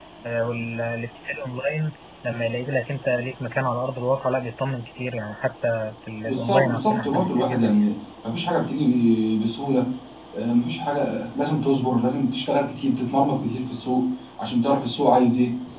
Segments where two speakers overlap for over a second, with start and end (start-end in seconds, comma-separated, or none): 6.2-7.9